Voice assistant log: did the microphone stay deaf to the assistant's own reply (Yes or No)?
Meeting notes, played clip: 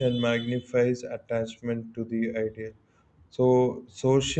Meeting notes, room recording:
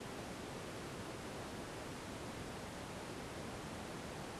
Yes